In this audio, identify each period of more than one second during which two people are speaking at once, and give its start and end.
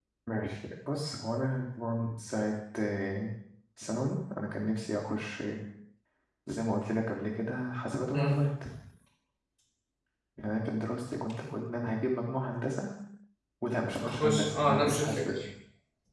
14.0-15.4

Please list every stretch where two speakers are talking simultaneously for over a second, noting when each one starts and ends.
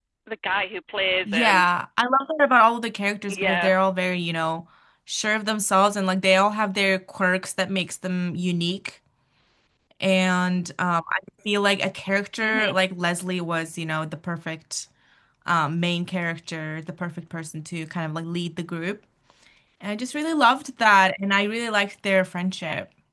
none

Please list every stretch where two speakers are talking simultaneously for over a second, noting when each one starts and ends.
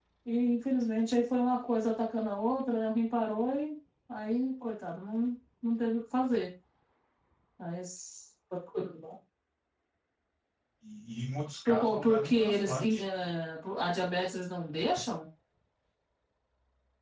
11.7-13.0

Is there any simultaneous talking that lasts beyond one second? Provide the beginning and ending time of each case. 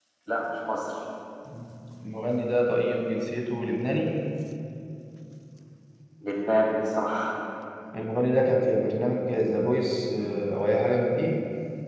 none

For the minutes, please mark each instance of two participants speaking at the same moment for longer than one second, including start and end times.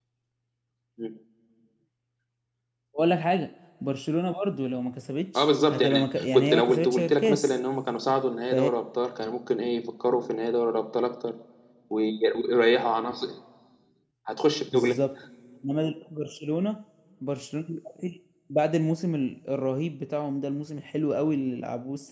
5.4-7.6

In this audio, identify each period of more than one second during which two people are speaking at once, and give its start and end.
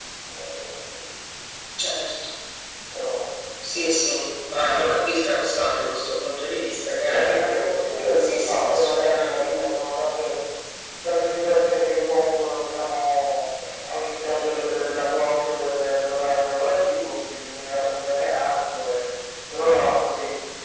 8.2-9.4

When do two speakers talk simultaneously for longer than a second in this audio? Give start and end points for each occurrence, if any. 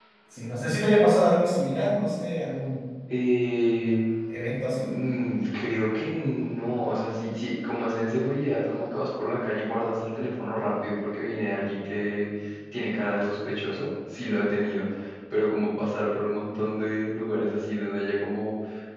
none

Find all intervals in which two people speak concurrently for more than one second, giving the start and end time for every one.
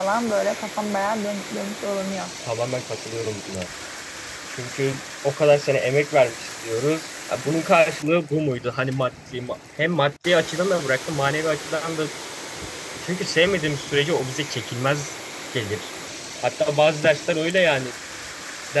none

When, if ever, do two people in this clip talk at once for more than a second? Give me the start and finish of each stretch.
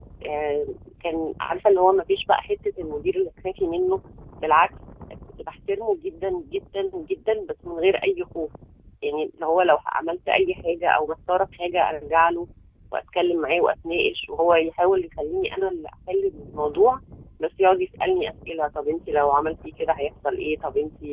none

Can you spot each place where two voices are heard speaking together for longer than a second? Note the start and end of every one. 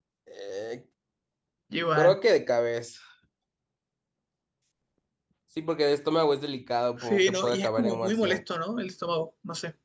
7.0-8.4

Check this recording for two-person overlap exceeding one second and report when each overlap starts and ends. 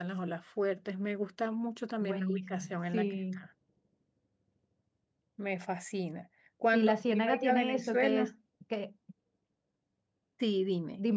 2.0-3.4, 6.7-8.3

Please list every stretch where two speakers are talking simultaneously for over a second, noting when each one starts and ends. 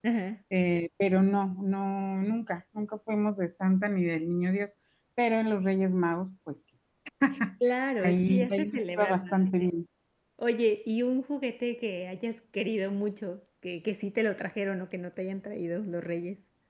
8.0-9.5

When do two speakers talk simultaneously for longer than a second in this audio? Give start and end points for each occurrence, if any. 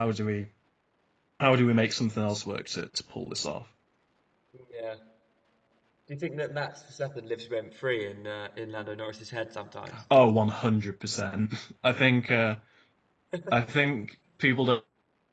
none

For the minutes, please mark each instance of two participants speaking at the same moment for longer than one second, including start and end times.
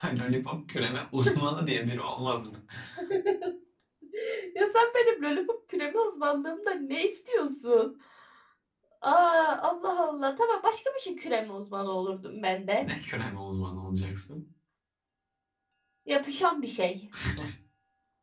none

